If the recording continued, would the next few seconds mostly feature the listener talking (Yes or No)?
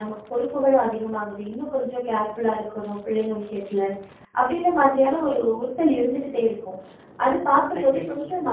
No